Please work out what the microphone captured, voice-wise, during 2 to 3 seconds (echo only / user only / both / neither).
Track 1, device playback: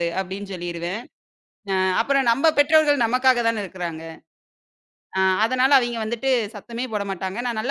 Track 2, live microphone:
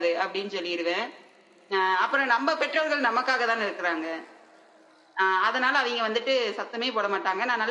echo only